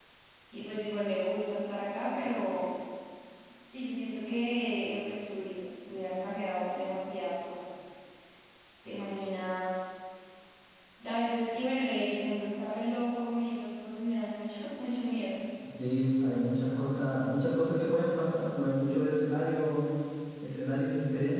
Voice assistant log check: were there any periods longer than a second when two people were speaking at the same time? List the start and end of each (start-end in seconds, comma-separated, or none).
none